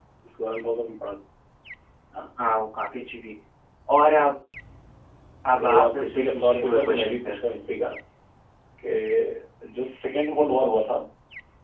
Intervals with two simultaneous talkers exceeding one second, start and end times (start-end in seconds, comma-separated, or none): 5.5-7.4